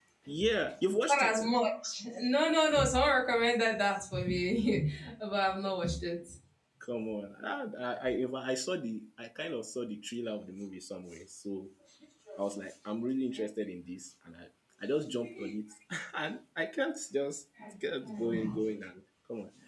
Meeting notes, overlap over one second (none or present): none